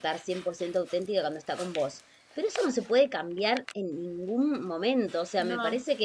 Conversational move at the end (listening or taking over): listening